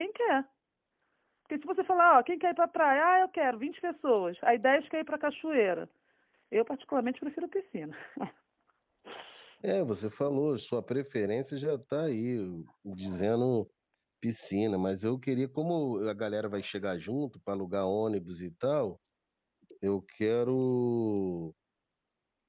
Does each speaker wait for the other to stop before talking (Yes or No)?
Yes